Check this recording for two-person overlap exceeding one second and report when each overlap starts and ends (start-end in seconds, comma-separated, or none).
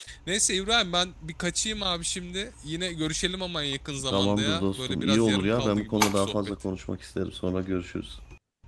4.1-6.4